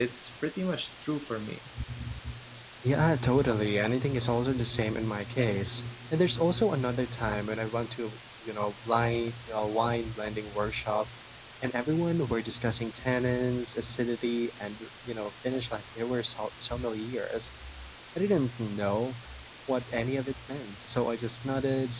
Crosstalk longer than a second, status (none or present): none